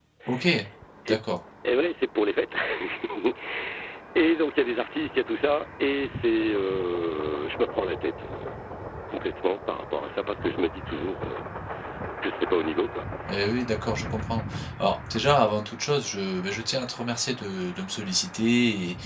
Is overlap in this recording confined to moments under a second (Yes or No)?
Yes